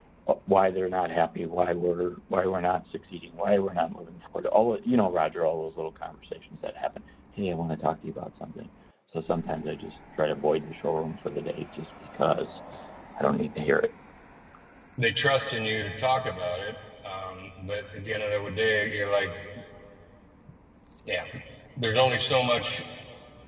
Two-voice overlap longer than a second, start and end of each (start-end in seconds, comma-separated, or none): none